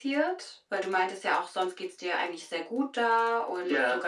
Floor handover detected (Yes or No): No